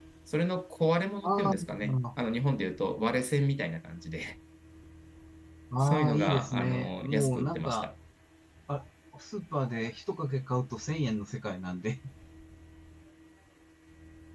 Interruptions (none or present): present